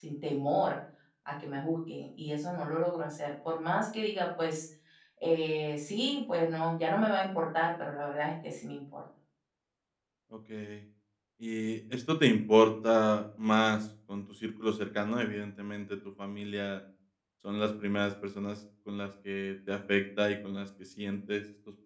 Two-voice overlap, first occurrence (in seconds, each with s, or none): none